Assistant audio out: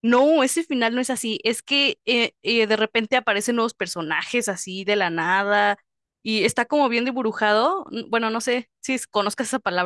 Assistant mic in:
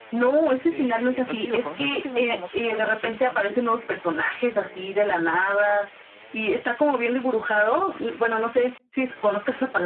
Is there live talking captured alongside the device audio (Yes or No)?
Yes